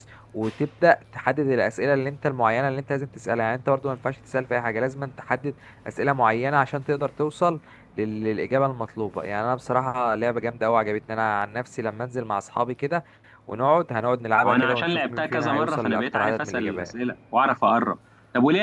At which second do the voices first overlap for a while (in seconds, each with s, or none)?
14.4 s